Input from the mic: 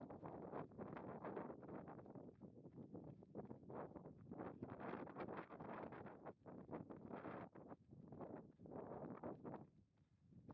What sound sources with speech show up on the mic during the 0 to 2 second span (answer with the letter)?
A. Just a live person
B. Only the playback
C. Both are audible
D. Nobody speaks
D